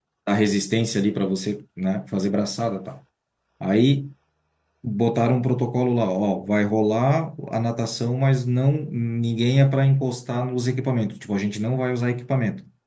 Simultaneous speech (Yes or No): No